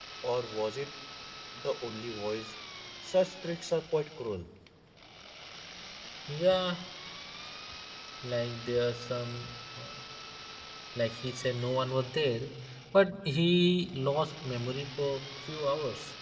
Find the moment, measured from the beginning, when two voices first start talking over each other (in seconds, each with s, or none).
none